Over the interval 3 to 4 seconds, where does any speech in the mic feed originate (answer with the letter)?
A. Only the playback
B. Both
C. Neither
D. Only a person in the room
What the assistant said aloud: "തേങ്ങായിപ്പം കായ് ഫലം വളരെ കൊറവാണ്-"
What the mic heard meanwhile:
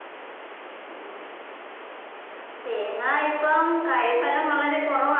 A